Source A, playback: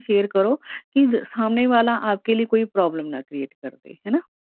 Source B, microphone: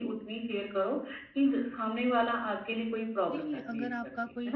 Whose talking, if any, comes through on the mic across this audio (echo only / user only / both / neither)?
both